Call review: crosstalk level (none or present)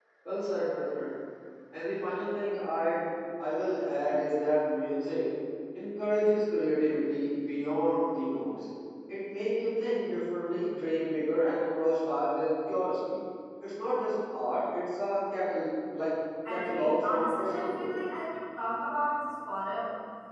present